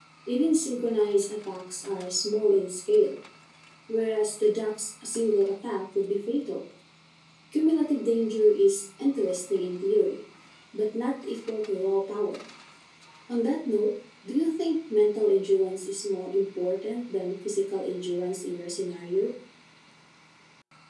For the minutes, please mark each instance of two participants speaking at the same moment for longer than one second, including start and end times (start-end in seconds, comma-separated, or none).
none